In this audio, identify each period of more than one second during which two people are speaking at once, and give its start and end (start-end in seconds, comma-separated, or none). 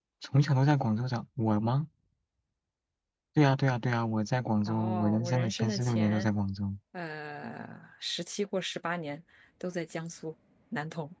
4.7-6.3